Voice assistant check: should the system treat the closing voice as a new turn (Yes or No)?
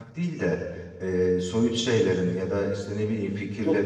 No